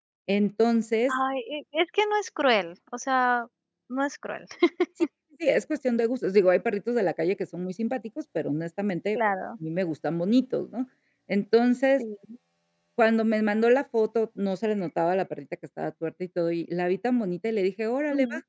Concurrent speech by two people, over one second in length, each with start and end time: none

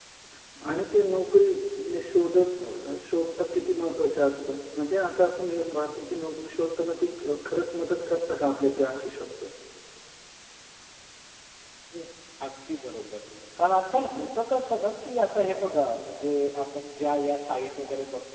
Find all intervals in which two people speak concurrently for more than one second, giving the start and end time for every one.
none

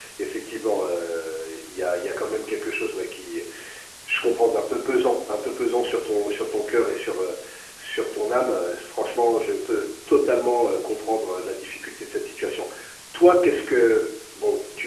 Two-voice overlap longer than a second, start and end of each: none

